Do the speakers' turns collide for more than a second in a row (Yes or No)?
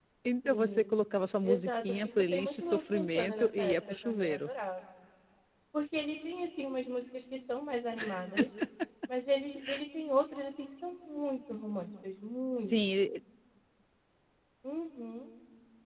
Yes